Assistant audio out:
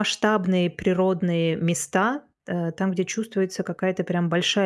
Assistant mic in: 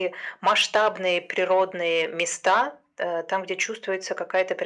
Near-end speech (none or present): none